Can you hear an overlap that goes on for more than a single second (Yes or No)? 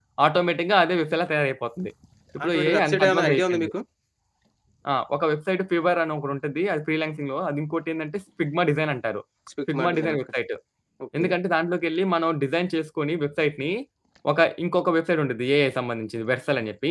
Yes